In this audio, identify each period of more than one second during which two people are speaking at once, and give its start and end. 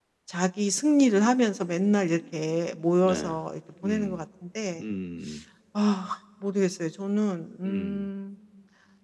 none

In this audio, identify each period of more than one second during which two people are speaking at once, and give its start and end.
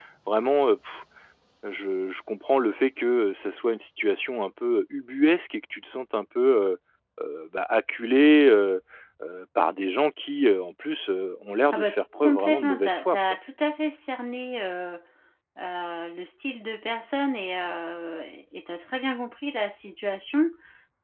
11.7-13.4

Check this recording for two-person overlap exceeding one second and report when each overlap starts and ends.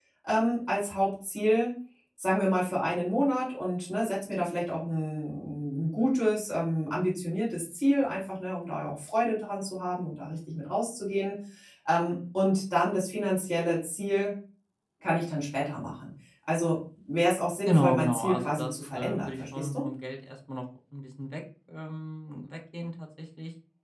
17.7-19.8

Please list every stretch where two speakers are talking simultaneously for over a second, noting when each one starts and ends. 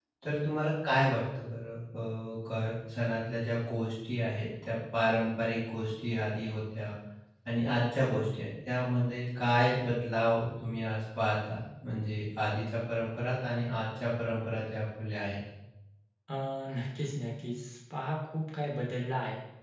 none

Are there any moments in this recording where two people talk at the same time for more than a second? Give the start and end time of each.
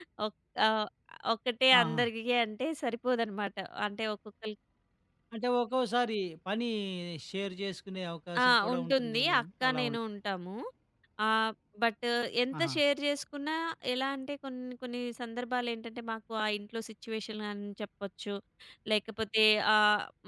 8.4-10.0

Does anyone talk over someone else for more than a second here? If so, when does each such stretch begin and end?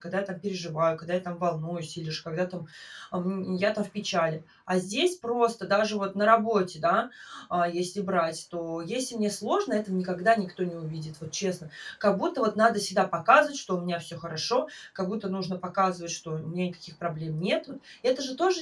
none

